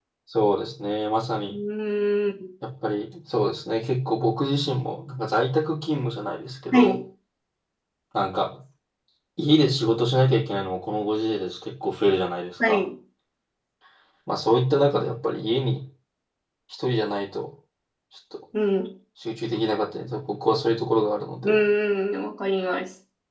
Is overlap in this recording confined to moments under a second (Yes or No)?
Yes